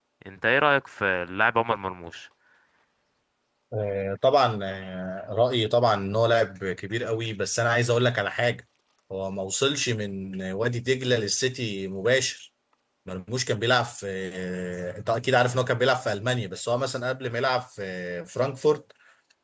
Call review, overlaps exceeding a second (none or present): none